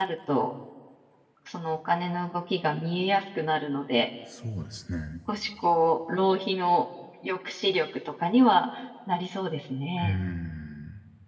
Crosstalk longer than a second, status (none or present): none